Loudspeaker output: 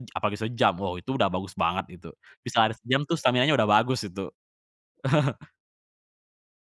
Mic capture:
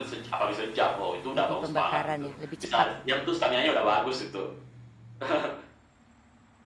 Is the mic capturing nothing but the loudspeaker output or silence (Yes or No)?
No